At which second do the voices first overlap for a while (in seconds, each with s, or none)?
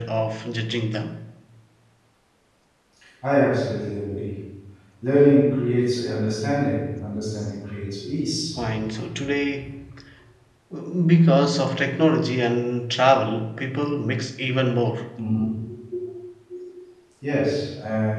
none